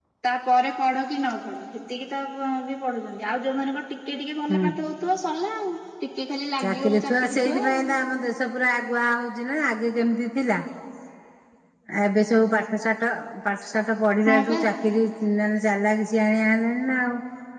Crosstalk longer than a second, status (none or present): present